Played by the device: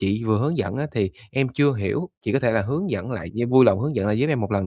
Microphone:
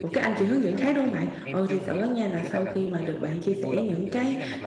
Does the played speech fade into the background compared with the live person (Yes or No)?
Yes